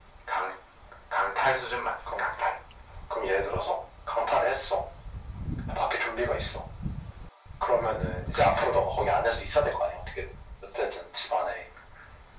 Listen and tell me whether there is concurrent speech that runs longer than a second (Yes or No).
No